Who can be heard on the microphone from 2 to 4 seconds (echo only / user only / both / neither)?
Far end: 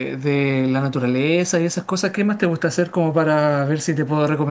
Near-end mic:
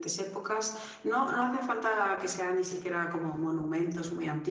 user only